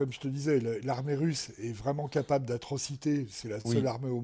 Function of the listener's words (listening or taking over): listening